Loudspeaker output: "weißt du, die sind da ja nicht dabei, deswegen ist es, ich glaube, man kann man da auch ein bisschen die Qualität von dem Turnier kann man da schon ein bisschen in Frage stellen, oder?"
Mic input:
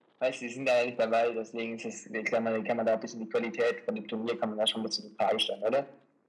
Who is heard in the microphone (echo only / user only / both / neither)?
echo only